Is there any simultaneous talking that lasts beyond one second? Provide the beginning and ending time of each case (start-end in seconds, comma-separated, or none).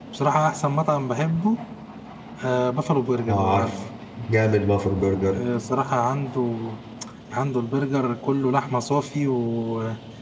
none